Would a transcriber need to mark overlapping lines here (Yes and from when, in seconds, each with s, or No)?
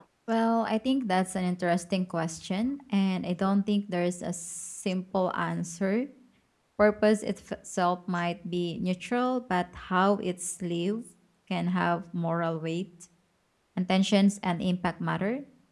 No